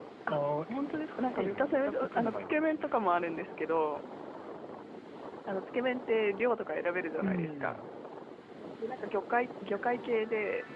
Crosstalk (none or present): present